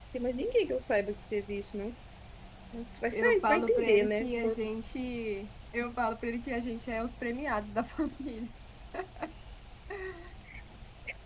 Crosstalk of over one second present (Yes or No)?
Yes